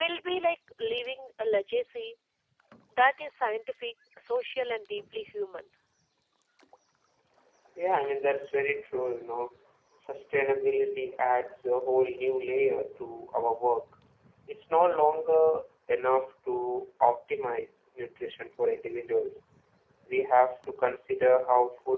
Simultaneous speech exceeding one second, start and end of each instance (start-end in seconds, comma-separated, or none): none